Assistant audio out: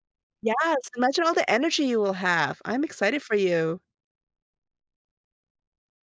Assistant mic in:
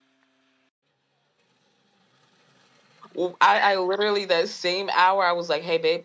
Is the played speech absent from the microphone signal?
Yes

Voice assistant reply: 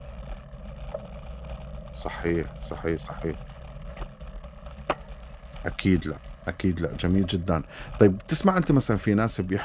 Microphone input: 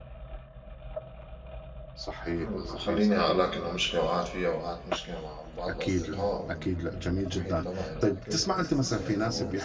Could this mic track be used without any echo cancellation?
No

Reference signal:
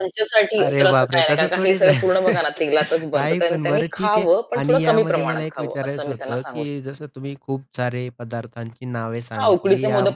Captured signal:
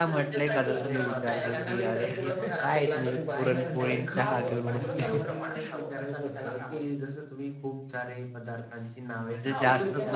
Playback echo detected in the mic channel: Yes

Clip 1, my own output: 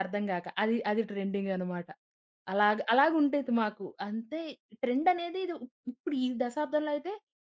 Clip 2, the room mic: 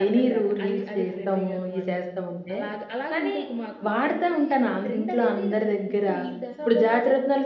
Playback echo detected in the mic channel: Yes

